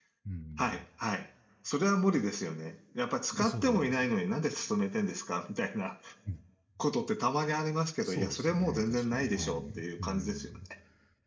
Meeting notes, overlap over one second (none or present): present